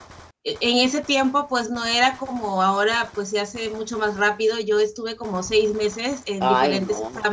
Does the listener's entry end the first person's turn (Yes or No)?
No